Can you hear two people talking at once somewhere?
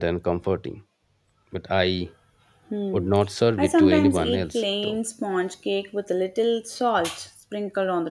Yes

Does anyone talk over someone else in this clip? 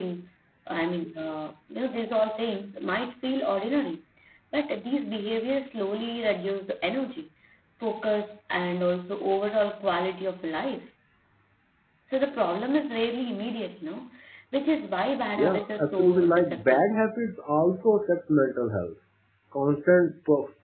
Yes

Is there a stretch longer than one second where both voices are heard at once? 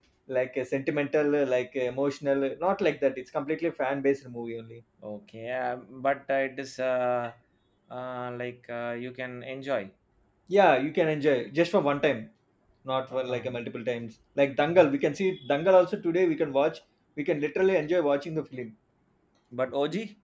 No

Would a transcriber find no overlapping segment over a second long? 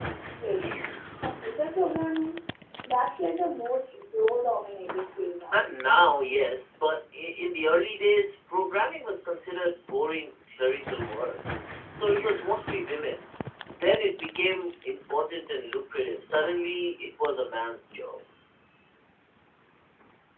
Yes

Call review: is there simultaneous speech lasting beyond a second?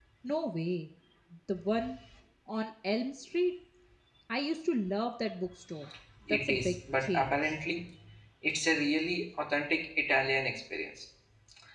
Yes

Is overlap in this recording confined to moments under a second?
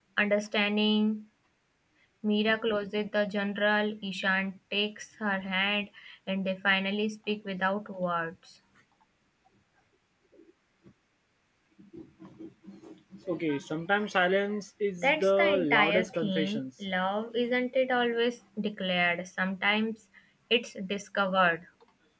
No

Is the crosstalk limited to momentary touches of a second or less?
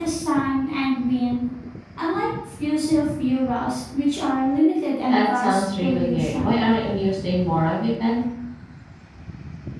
No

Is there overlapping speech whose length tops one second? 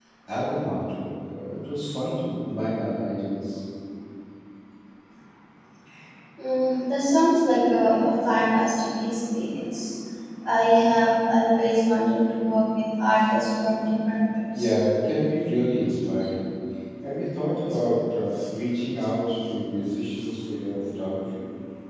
No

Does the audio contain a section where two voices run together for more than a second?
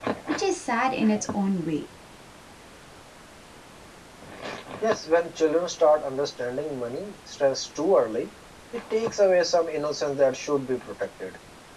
No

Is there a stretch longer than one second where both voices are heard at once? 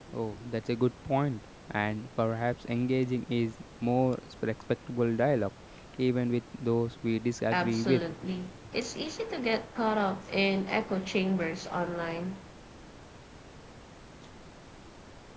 No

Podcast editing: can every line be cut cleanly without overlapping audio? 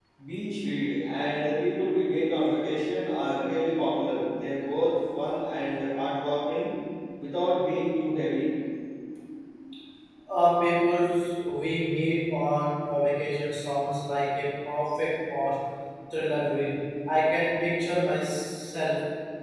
Yes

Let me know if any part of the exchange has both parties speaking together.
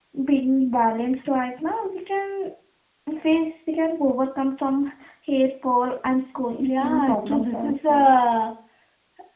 Yes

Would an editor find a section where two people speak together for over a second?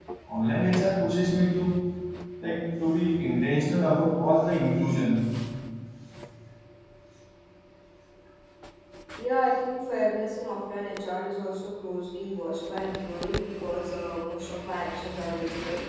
No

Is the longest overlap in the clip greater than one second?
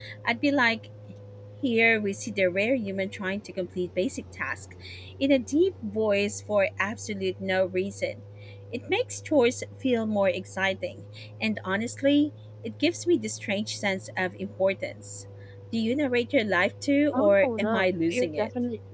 Yes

